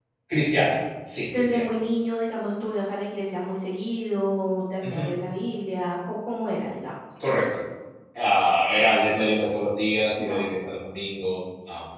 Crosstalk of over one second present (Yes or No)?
No